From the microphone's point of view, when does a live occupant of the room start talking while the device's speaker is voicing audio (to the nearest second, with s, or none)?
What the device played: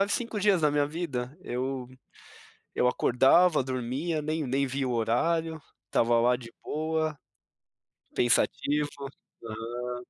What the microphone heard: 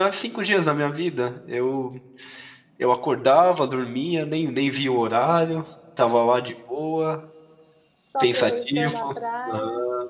8 s